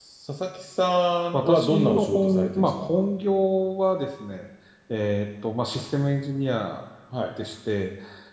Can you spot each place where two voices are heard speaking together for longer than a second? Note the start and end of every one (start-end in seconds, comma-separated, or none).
1.3-2.7